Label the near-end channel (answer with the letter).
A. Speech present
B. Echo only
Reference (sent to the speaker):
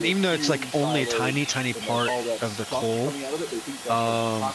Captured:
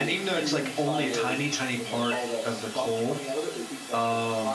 B